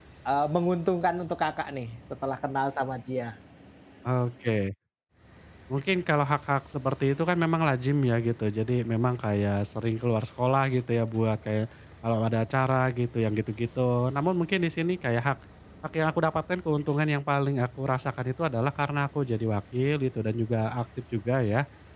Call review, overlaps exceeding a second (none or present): none